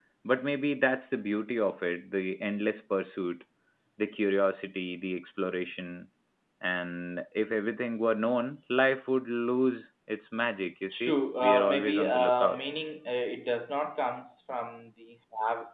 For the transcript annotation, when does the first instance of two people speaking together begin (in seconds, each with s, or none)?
10.9 s